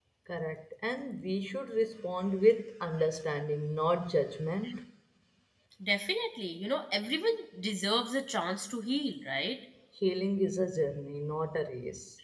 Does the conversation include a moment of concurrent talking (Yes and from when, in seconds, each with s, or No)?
No